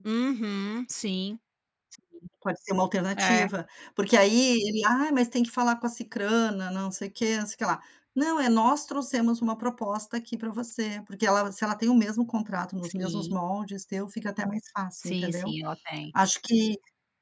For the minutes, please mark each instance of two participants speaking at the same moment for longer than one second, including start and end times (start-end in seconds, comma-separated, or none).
none